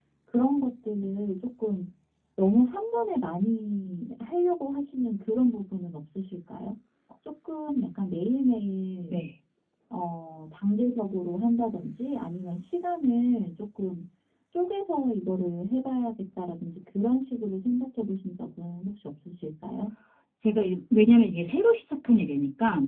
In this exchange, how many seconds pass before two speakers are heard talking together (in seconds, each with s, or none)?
none